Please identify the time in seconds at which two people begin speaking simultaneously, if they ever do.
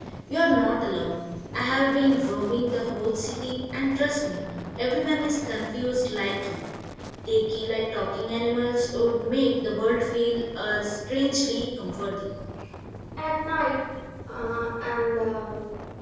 none

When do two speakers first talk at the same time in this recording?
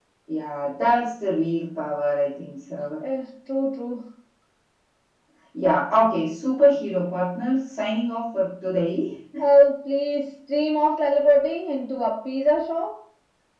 none

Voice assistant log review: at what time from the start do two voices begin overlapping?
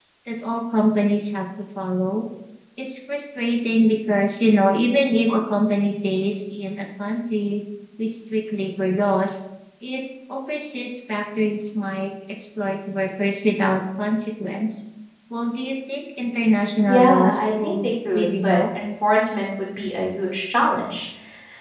16.9 s

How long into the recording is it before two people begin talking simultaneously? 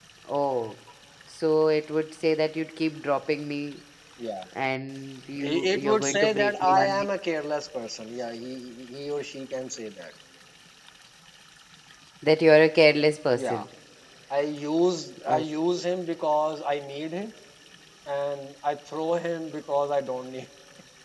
5.4 s

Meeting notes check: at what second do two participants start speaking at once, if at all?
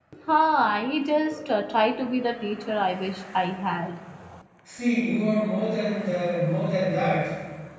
none

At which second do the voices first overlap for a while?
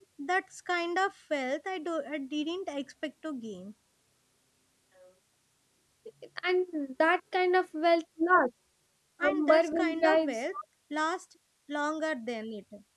9.2 s

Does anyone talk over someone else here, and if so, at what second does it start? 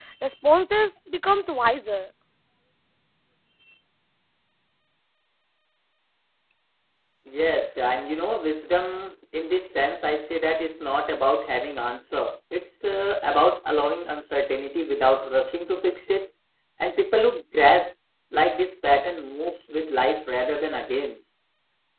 none

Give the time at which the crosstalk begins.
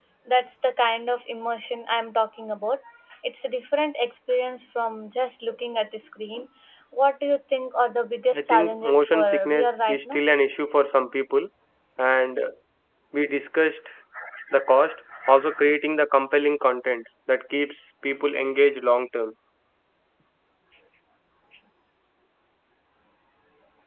8.3 s

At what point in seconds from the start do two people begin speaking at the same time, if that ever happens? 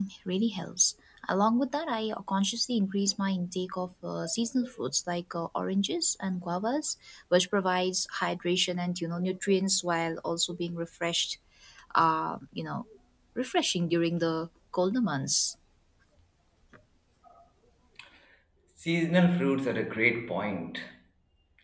none

